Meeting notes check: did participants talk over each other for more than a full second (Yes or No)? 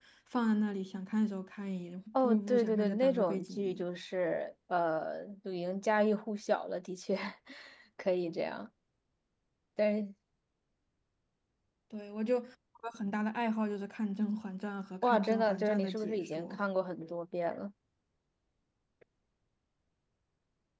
Yes